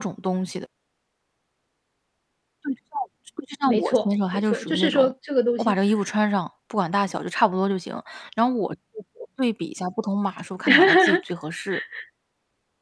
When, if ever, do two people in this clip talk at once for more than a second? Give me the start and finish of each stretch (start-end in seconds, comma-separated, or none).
3.7-5.1